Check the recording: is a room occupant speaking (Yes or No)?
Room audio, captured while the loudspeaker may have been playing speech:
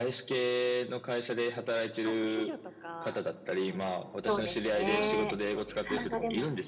Yes